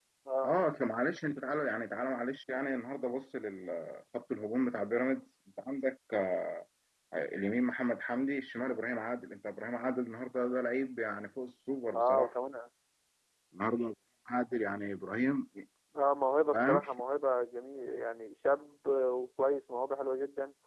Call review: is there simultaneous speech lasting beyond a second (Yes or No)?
No